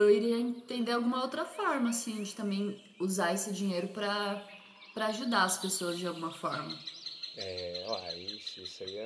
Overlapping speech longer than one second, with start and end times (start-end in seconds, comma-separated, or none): none